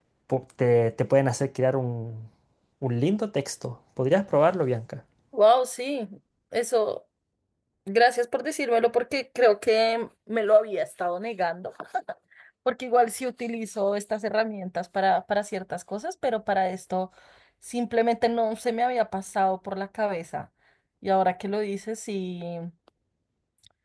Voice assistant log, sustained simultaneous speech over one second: none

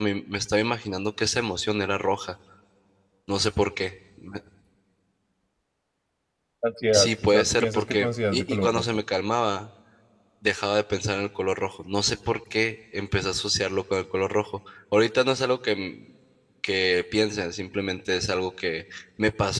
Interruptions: present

